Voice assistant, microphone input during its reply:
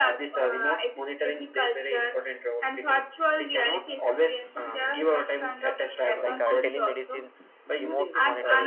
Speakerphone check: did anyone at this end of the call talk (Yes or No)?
Yes